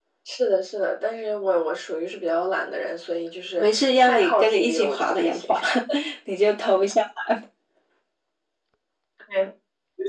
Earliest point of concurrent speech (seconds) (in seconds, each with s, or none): 3.6 s